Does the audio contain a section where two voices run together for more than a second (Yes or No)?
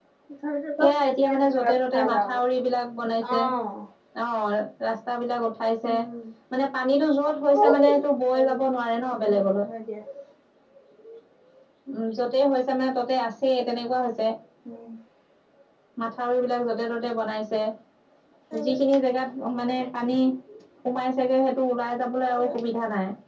Yes